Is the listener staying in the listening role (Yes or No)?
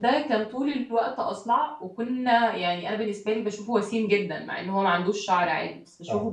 Yes